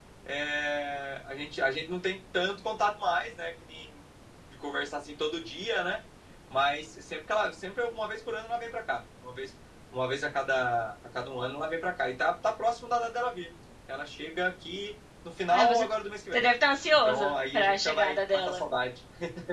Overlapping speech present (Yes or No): Yes